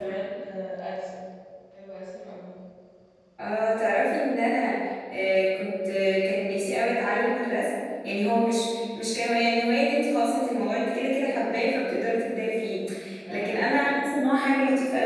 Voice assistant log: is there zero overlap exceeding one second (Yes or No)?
Yes